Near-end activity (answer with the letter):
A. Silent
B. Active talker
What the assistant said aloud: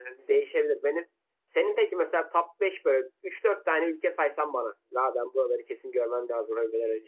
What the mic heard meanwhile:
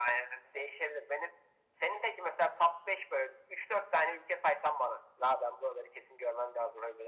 A